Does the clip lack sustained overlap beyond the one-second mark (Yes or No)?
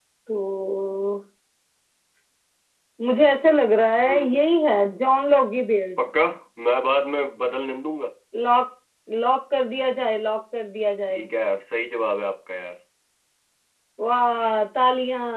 Yes